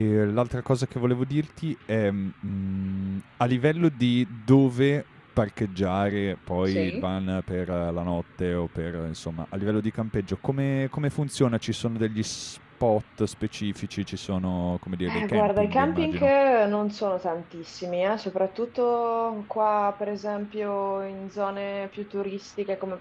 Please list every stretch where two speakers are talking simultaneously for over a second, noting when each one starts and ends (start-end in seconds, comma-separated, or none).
15.1-16.3